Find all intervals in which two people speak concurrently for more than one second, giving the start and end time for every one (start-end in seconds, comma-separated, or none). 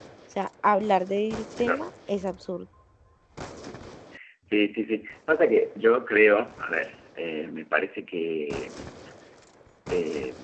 none